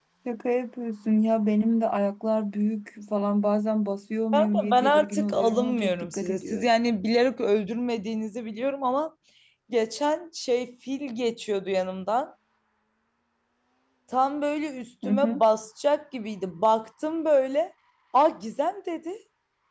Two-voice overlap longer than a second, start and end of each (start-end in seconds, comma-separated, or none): 4.3-6.7